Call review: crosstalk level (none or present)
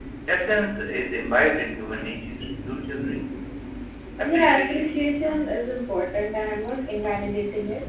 present